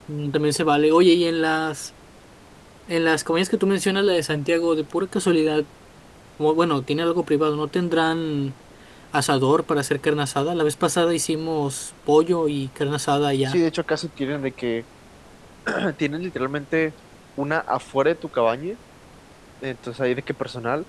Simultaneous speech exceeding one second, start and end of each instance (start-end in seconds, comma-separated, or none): none